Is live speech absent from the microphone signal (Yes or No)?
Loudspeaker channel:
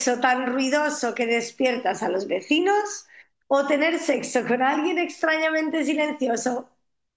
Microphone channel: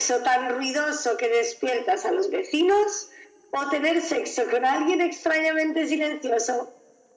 Yes